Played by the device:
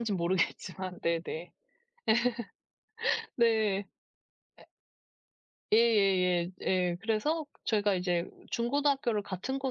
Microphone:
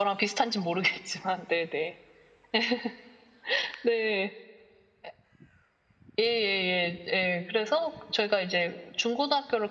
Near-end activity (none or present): none